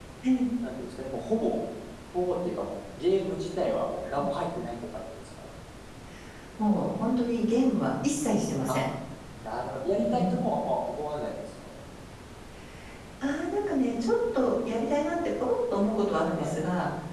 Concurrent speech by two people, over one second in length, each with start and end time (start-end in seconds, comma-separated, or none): none